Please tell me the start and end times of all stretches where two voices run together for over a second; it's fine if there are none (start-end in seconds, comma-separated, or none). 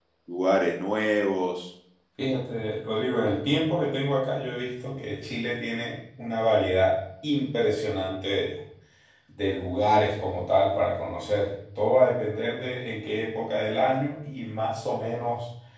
none